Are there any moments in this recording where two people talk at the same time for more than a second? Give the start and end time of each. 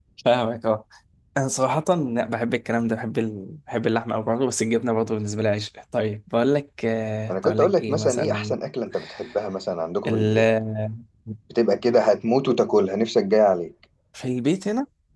7.3-8.6

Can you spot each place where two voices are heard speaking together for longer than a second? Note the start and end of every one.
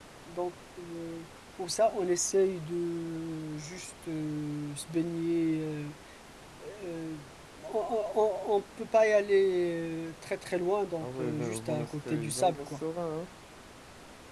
11.0-12.8

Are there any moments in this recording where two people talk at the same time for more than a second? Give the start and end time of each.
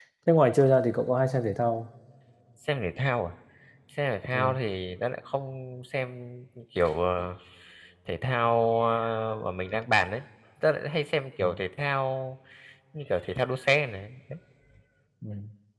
none

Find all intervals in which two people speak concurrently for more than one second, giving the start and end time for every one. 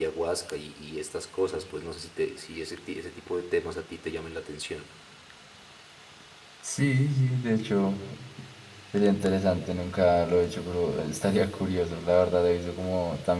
none

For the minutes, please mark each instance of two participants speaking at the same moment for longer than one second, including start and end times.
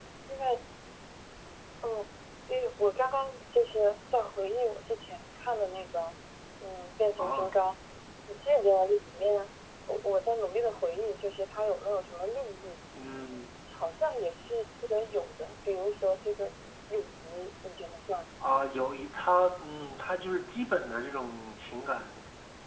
none

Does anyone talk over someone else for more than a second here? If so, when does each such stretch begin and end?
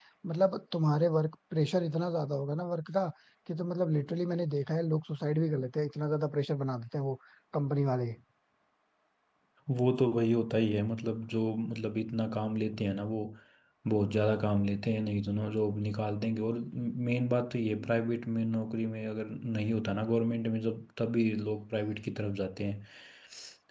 none

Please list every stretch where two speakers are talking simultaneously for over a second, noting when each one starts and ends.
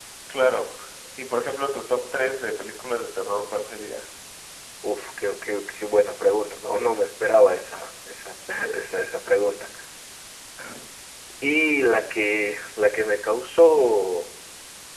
none

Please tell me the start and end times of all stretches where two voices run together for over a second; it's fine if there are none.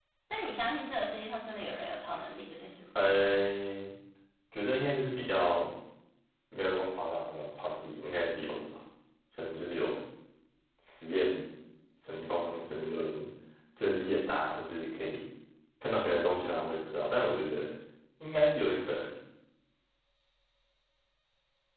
none

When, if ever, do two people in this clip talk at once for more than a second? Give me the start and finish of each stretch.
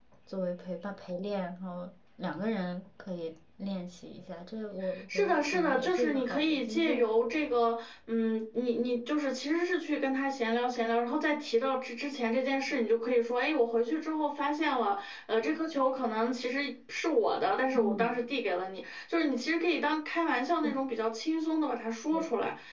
5.1-7.0

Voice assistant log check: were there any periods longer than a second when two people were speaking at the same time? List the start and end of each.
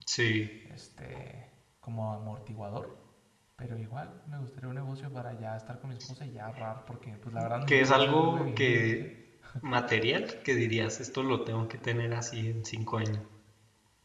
7.7-9.0

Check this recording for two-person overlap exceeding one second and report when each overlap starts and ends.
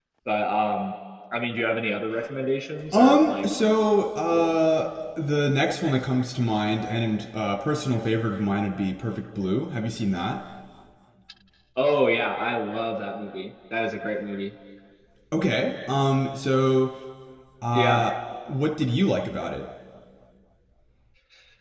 none

